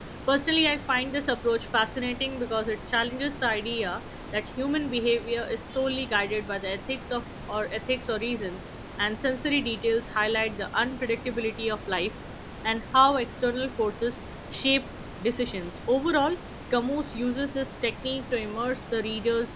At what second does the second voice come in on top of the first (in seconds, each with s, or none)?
none